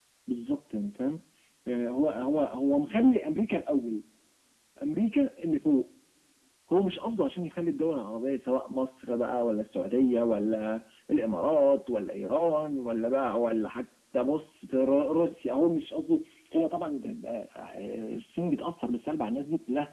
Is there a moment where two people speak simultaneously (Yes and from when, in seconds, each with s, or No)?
No